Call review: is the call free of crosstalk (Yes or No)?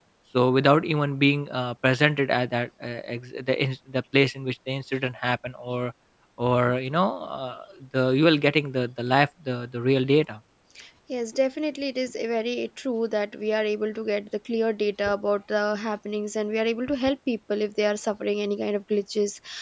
Yes